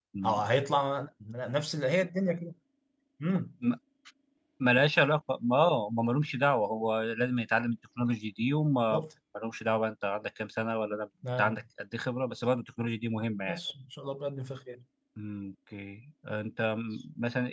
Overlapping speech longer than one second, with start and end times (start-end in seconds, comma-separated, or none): none